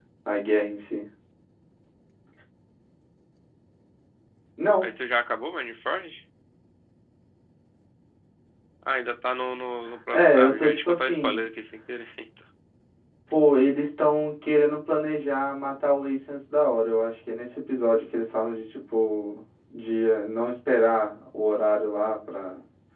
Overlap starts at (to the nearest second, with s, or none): 10 s